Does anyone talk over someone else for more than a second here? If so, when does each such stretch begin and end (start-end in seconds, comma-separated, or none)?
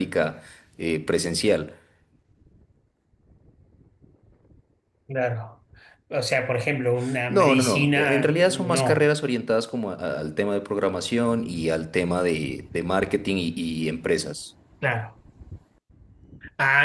7.3-9.1